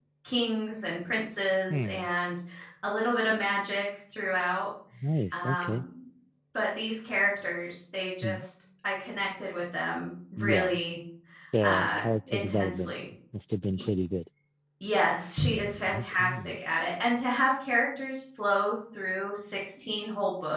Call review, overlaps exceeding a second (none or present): present